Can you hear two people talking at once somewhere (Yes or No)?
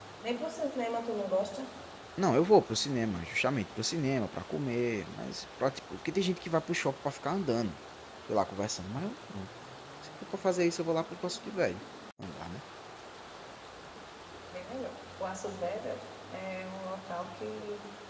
No